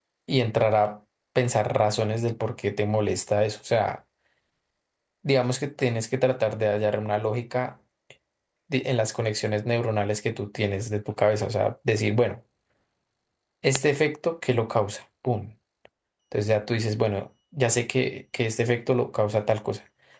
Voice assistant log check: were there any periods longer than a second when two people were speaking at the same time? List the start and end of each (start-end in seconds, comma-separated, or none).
none